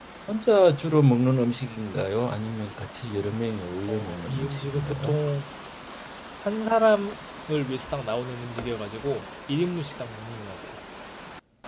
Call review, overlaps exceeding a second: present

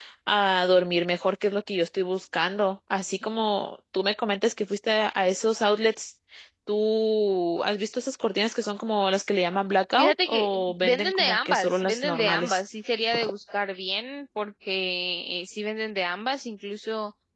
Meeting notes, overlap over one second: present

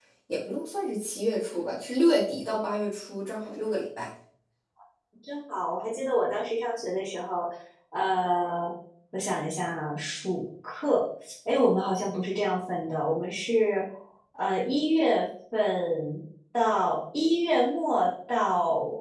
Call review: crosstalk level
none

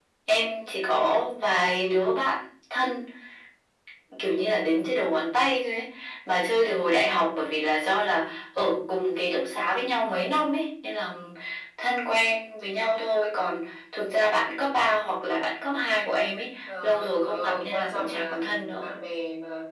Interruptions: present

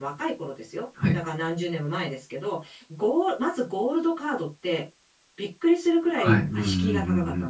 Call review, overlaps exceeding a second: present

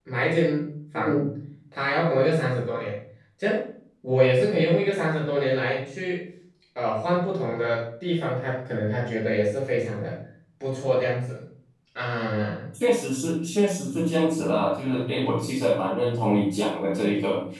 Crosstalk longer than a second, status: none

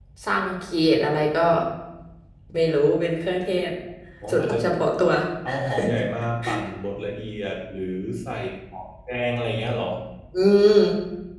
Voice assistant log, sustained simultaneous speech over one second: none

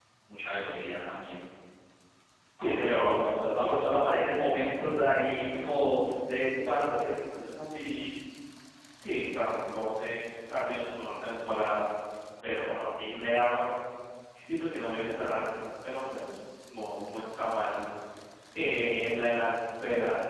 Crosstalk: present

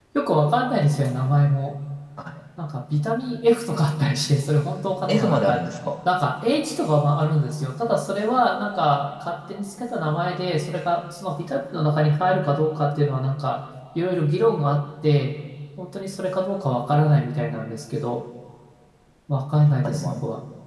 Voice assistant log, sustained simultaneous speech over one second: none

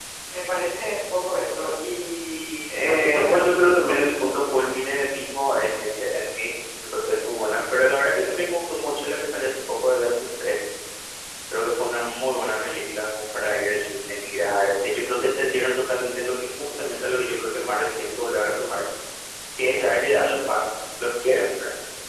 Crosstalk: present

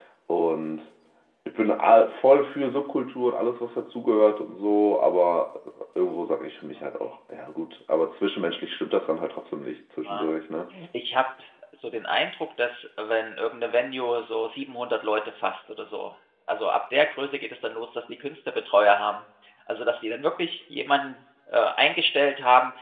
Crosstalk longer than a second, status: none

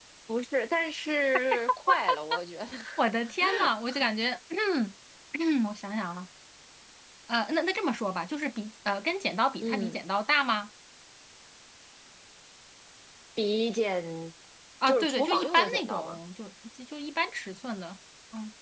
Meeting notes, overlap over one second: present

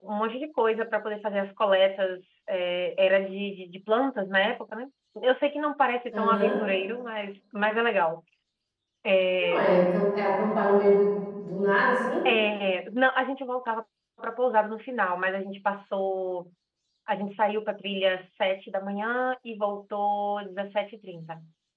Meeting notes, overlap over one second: none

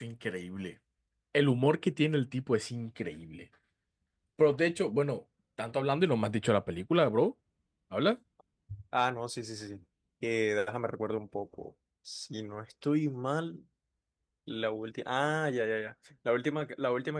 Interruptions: none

